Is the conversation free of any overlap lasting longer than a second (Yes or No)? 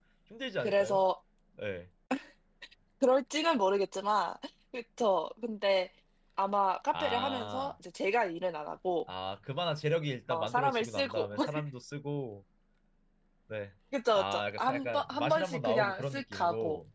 No